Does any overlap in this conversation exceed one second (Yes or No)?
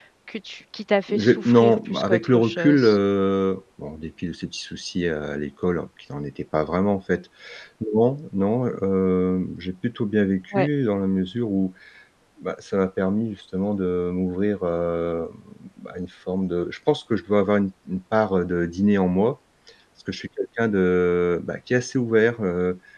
Yes